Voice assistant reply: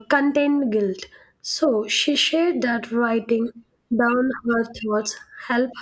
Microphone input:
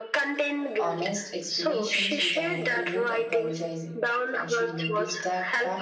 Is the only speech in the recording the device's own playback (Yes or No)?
No